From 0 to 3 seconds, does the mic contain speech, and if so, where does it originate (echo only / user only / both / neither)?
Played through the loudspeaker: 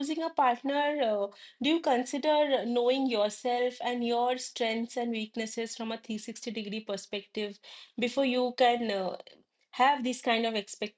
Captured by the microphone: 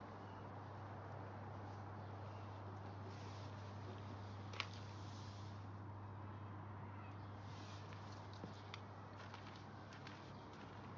neither